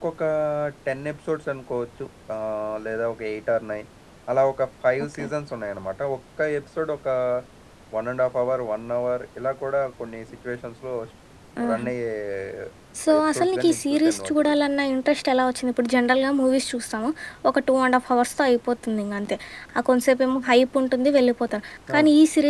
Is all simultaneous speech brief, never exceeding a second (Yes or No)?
No